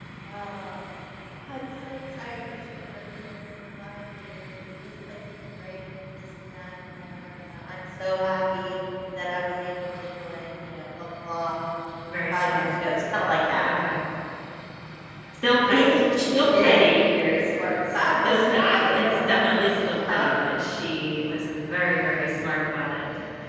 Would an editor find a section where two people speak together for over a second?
Yes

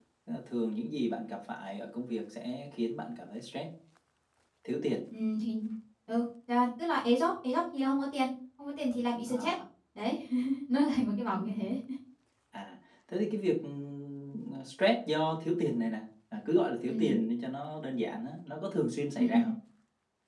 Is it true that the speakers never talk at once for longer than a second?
Yes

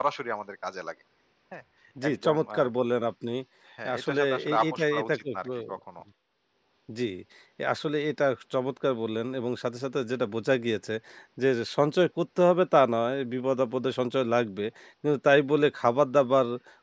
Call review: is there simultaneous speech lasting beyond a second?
Yes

